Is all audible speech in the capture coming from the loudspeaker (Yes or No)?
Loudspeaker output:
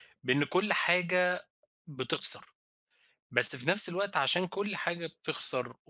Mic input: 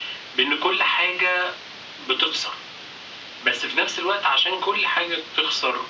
Yes